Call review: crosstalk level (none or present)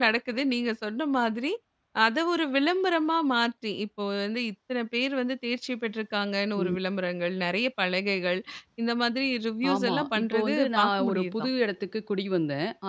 present